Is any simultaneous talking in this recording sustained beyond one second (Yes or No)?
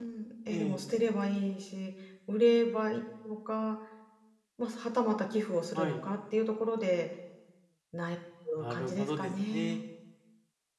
Yes